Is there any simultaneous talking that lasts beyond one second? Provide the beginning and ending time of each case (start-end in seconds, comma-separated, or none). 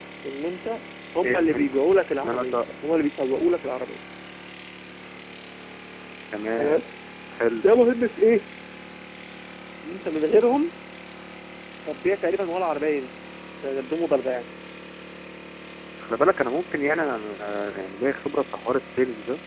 1.2-2.6